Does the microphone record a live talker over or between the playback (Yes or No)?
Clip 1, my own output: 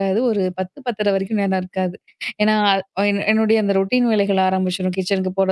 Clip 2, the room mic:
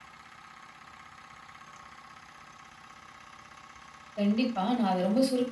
Yes